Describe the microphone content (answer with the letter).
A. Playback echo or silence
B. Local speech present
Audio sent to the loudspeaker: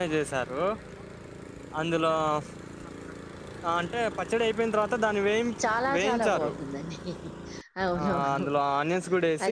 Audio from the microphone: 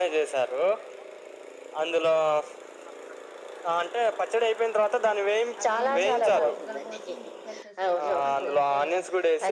B